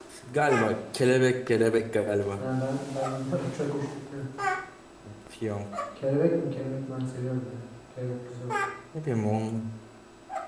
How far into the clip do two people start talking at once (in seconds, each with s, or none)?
none